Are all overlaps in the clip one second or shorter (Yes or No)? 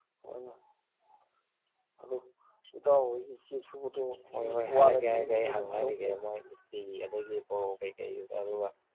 No